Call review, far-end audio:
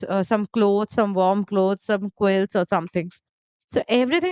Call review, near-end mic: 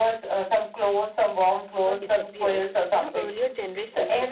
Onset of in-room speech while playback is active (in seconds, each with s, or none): 1.8 s